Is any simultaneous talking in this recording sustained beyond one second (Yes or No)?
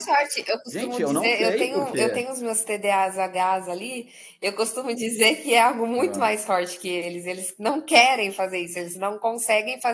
Yes